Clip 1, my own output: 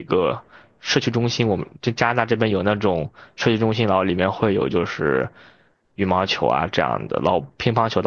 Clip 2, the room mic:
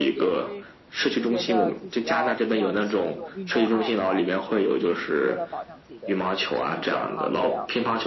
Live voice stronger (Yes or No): No